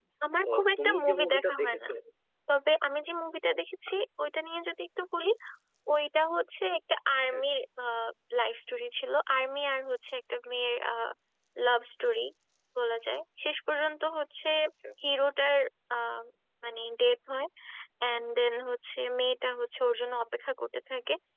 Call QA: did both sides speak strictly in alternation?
No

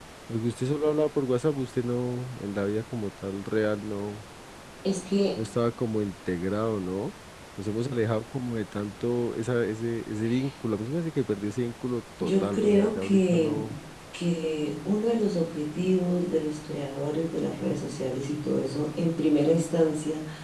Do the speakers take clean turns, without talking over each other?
No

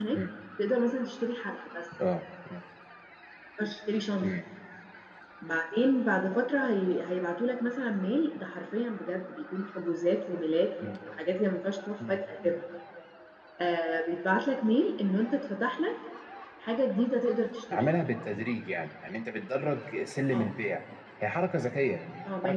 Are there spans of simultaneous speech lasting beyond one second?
No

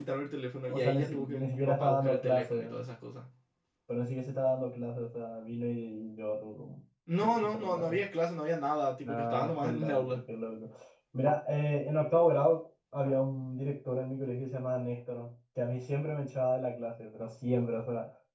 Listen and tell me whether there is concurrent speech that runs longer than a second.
Yes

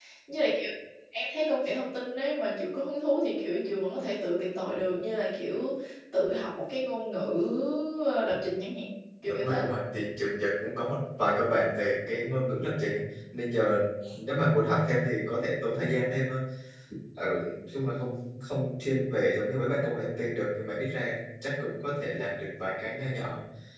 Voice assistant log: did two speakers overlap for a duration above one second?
No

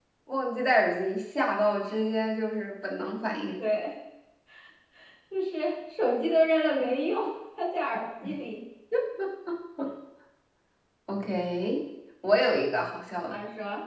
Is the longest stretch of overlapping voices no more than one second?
Yes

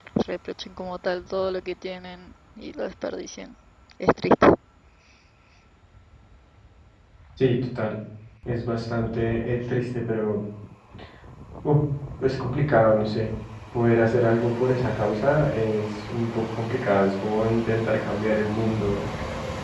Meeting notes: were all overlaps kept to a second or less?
Yes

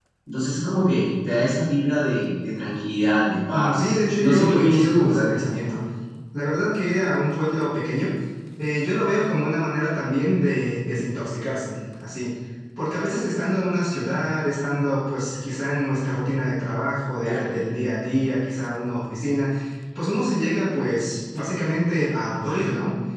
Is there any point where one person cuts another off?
Yes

